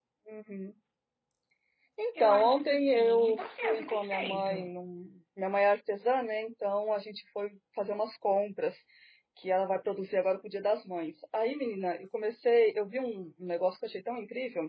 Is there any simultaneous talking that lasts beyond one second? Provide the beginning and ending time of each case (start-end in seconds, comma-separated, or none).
2.2-4.7